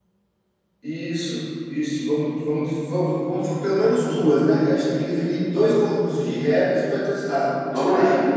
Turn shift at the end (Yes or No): Yes